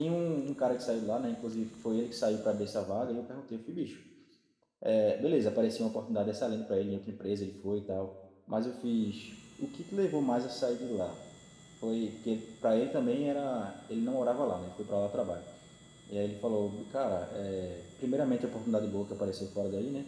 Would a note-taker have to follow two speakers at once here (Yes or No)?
No